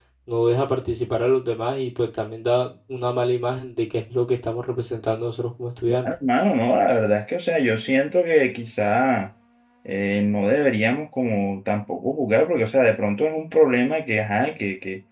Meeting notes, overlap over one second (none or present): none